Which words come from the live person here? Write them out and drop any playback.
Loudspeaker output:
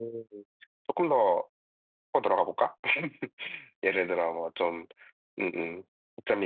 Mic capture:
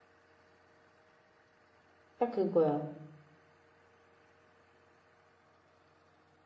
딱 그거야.

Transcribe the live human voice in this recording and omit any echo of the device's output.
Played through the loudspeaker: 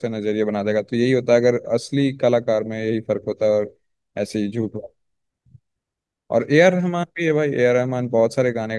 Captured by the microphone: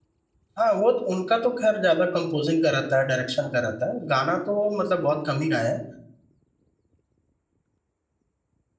हाँ वो तो- उनका तो खैर ज्यादा कंपोजिंग का रहता है डायरेक्शन का रहता है गाना तो वो मतलब बहुत कम ही गाए हैं

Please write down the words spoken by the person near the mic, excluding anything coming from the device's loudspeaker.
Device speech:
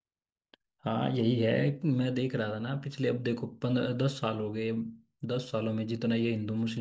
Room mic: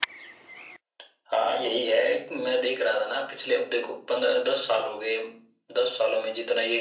none

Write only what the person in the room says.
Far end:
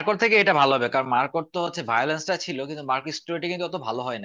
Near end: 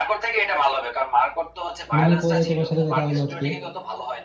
অনেকদিন পর তোমার সাথে দেখা হলো আজকে

